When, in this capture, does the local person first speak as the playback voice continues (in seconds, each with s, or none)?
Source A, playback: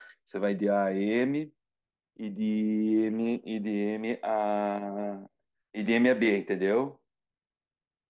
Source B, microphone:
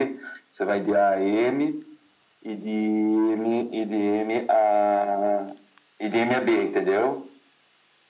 none